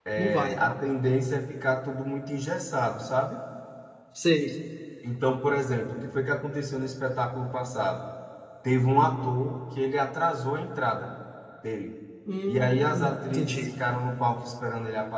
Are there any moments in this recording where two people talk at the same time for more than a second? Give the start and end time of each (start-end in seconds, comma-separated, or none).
12.5-13.7